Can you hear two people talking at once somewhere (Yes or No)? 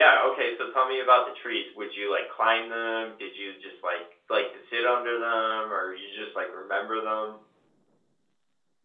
No